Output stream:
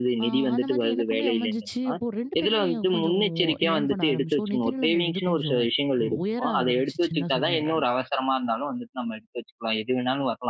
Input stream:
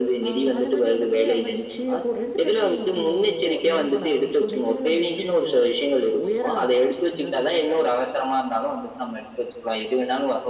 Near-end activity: none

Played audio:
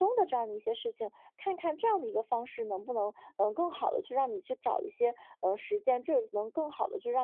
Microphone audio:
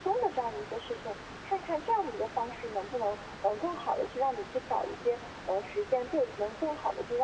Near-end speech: none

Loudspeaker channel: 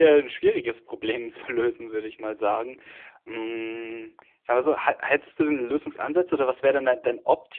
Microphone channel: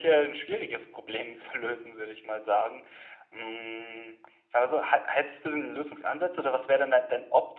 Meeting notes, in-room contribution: none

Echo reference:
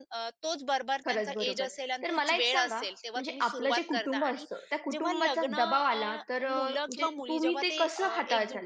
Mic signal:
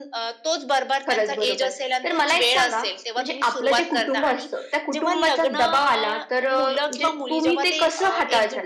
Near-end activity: none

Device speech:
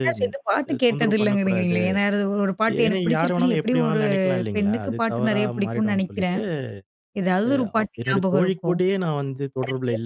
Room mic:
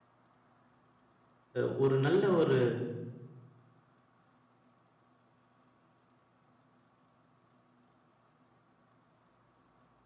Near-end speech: present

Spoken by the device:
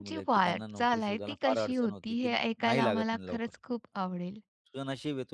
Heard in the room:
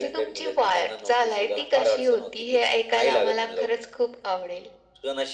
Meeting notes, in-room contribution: none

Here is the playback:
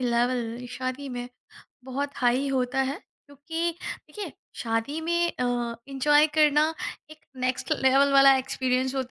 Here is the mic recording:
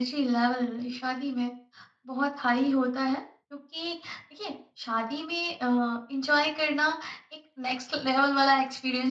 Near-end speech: none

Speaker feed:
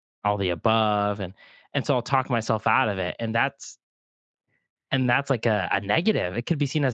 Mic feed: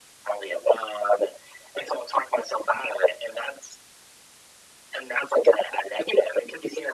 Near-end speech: none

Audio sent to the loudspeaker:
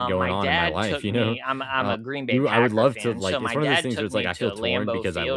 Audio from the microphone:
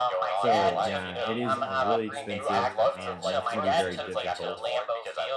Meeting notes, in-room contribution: present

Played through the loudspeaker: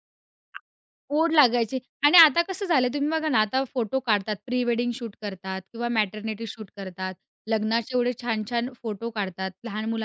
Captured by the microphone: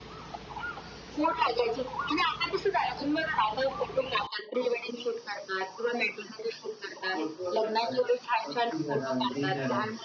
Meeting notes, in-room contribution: present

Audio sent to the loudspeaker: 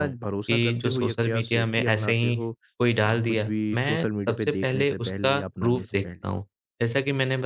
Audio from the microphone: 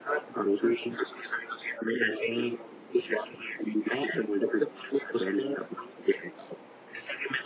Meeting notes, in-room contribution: none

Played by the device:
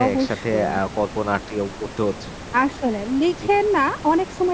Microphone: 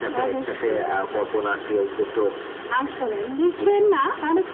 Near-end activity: none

